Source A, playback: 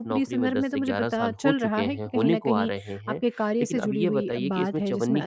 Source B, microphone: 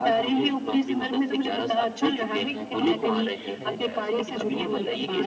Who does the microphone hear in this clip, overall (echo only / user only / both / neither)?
both